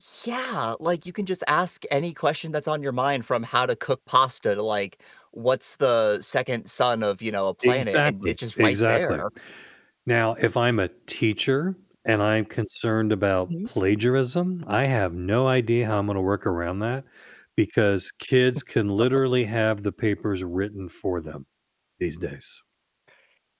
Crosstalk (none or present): present